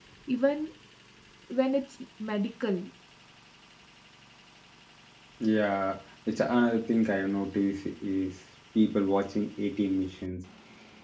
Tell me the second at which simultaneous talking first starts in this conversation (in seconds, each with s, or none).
none